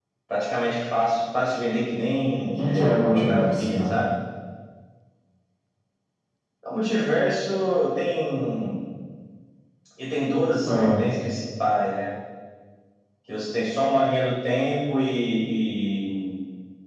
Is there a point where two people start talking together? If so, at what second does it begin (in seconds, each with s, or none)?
2.6 s